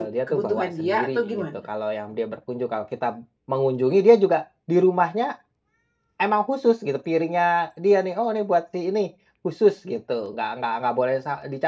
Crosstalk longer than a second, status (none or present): present